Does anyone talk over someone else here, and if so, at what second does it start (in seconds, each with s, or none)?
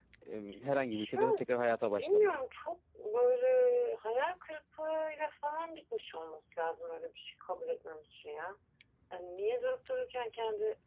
1.1 s